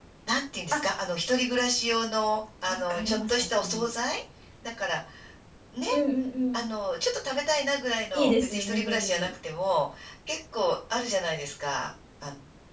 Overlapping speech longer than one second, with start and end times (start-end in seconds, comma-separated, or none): 2.7-3.9, 8.1-9.3